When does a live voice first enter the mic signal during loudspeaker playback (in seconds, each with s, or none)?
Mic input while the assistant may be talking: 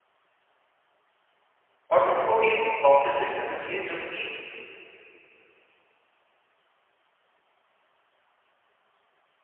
1.9 s